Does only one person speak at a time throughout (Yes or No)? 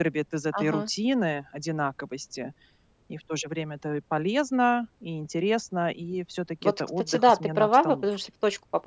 No